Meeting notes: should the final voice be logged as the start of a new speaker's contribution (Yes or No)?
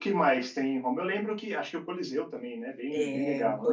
Yes